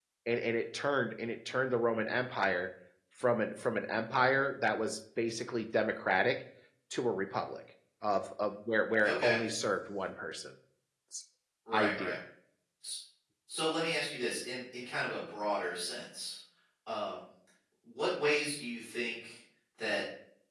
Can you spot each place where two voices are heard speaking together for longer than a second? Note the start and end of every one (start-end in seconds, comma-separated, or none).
none